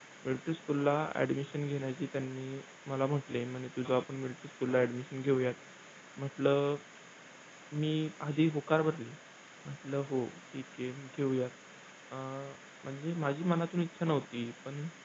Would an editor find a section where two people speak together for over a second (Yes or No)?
No